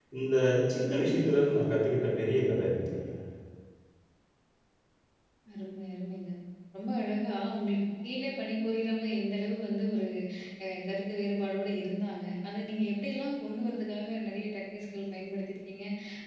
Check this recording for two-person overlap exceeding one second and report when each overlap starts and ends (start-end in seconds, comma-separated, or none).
none